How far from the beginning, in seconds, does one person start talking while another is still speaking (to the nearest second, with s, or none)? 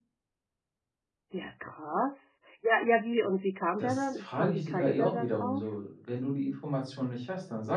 4 s